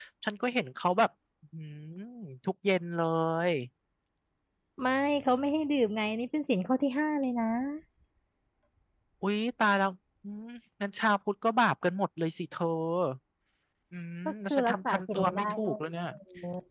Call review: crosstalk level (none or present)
present